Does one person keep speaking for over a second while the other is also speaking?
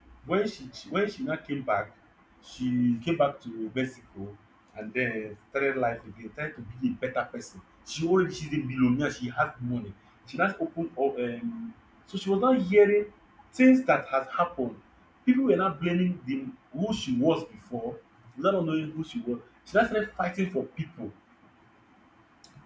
No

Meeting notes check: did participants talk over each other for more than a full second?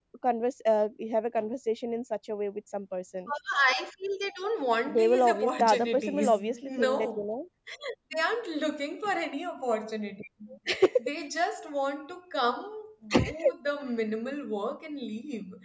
Yes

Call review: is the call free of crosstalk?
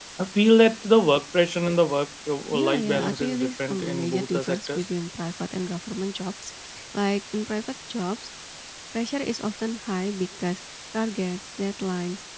No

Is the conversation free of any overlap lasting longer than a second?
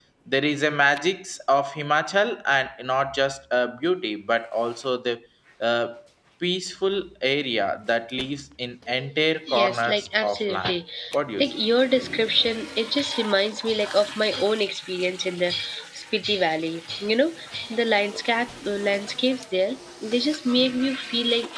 No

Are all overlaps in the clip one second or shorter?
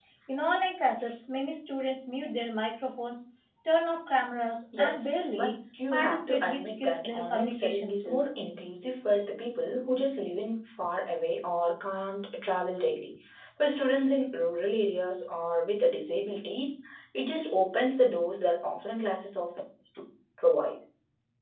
No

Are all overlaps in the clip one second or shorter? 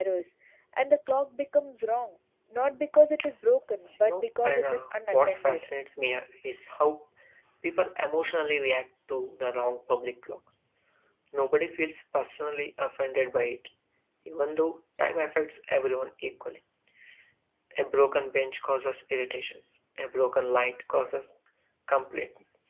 No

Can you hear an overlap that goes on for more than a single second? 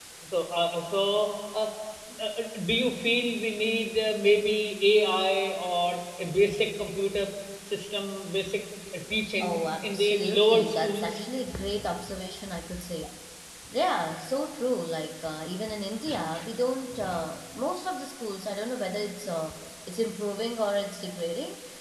Yes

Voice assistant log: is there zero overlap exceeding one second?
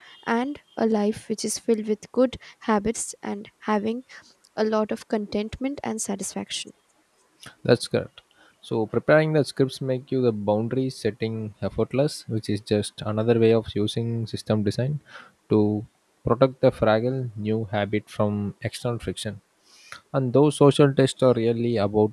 Yes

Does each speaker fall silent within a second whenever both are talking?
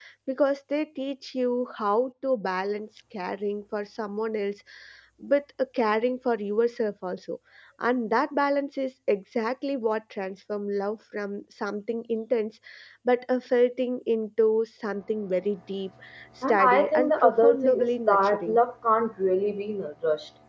No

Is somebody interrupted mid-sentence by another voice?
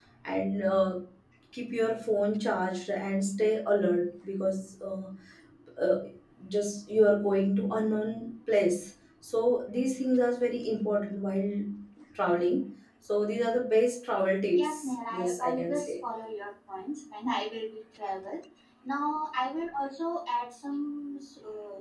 Yes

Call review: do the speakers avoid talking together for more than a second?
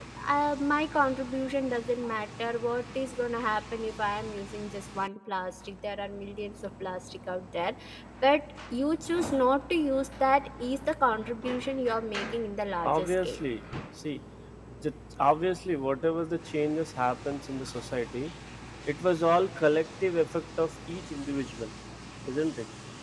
Yes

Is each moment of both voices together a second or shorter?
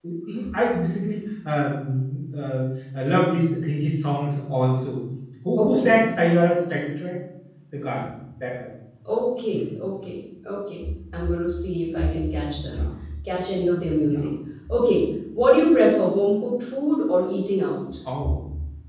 Yes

